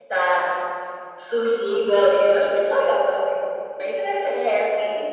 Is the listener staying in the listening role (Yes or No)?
No